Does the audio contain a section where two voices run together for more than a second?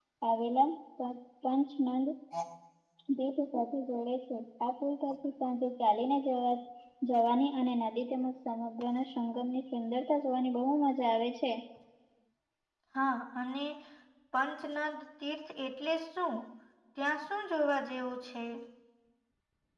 No

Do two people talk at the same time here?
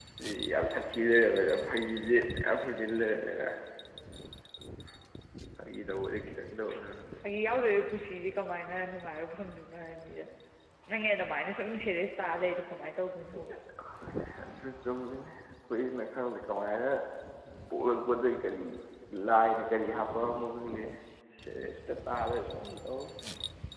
No

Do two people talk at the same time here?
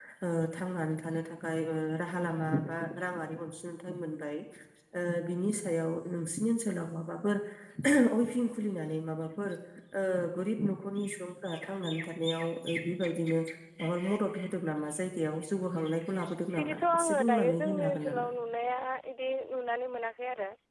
Yes, from 16.6 s

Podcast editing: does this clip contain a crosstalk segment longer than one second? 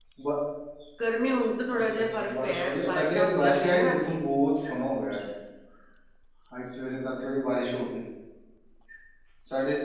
Yes, from 1.8 s

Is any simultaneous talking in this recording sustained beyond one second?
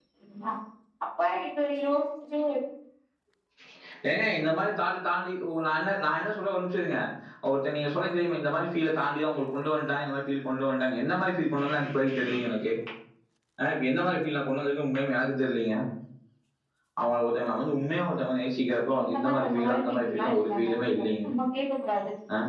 Yes, from 18.9 s

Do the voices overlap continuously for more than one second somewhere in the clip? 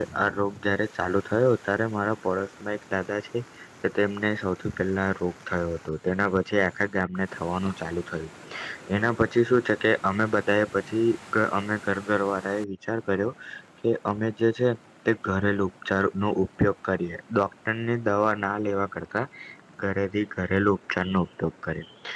No

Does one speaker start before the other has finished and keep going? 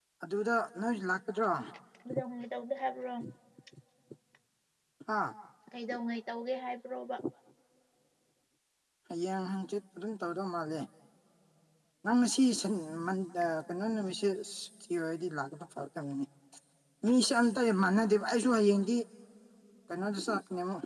No

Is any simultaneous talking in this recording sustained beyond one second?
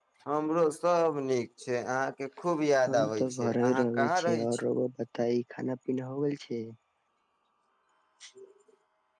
Yes, from 2.9 s

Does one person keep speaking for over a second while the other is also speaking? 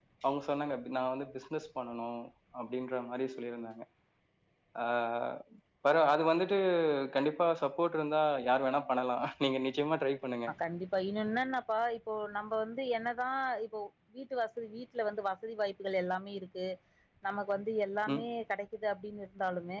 No

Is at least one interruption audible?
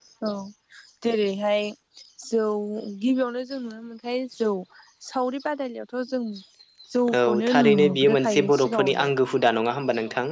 Yes, from 7.2 s

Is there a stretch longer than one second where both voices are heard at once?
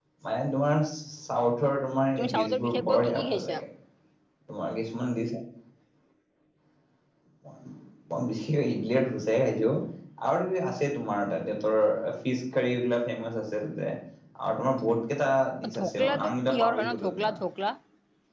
Yes, from 2.2 s

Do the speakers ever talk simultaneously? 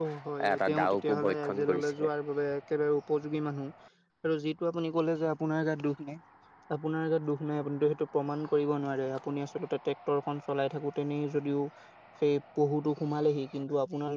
Yes, from 0.5 s

